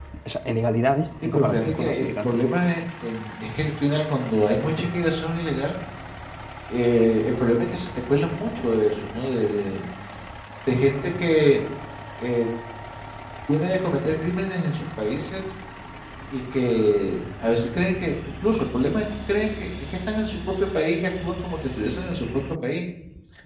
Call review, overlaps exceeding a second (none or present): present